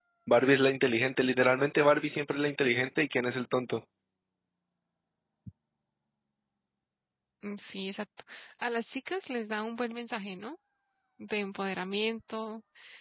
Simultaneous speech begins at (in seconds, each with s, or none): none